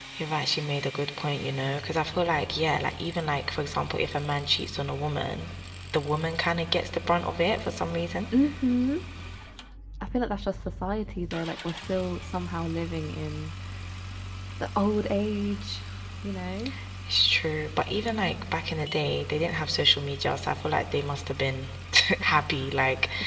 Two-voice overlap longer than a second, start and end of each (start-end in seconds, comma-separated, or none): none